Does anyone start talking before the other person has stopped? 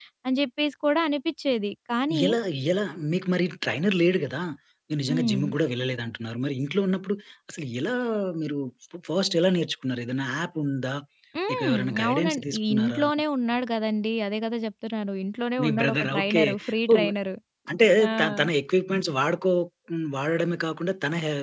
Yes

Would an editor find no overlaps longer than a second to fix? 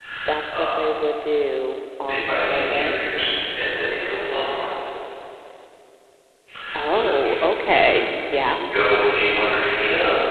No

